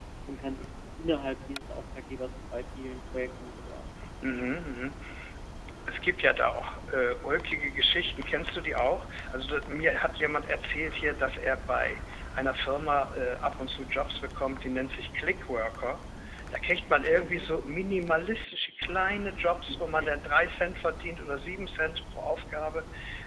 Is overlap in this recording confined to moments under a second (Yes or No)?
Yes